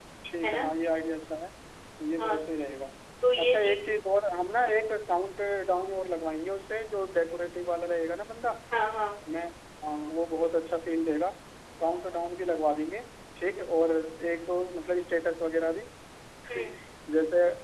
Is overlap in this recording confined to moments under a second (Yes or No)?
Yes